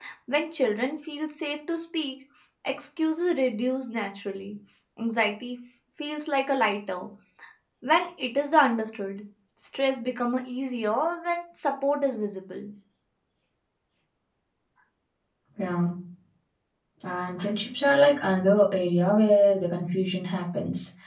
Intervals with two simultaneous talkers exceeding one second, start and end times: none

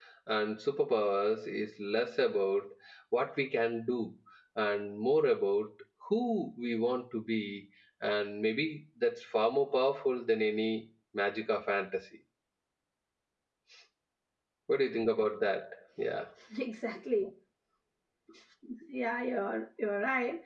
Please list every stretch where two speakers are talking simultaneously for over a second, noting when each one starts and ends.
none

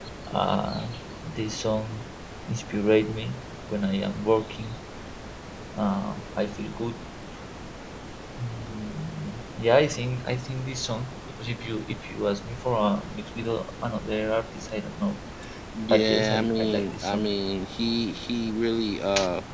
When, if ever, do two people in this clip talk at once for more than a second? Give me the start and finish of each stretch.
15.9-17.3

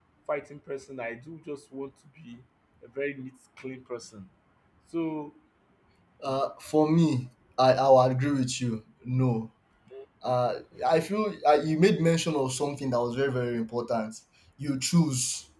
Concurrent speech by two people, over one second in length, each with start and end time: none

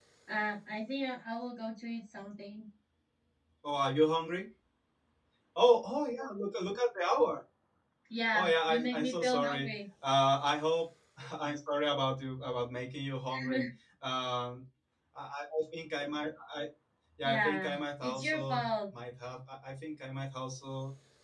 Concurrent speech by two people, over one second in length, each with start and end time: 8.3-9.7, 17.2-18.7

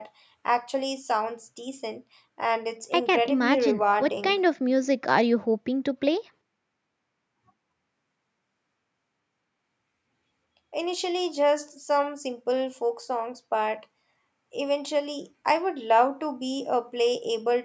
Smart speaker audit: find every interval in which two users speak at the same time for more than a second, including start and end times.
2.9-4.4

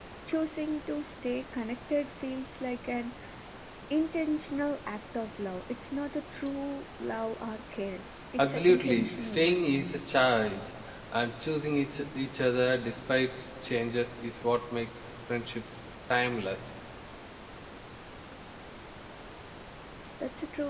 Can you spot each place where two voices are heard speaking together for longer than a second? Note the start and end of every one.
8.4-9.6

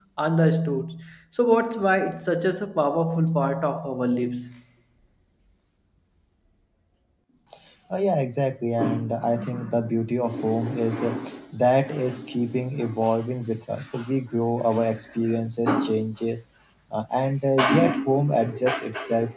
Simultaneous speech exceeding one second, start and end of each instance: none

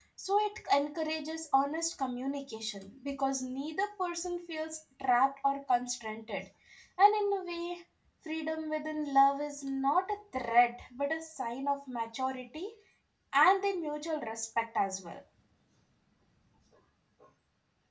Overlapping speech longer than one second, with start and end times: none

